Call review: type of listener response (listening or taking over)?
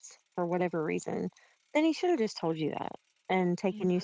listening